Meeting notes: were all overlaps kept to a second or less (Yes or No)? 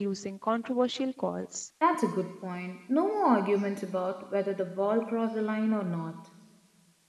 Yes